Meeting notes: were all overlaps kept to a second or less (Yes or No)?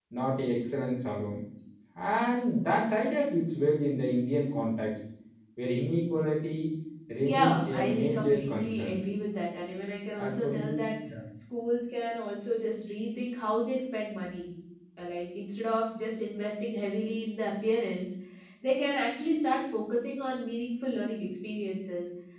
No